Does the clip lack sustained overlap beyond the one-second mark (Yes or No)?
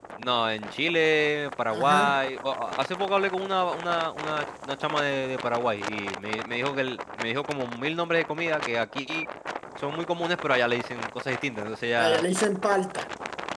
Yes